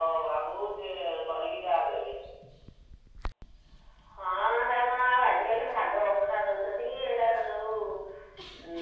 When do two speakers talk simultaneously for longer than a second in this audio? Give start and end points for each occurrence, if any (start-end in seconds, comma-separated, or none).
none